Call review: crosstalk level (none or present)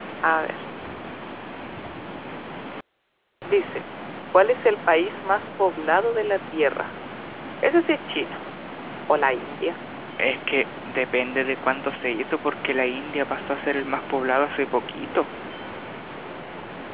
none